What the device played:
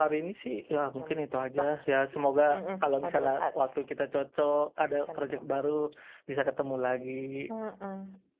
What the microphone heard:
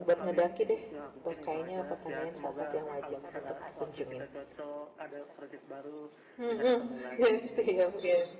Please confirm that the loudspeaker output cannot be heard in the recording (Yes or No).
No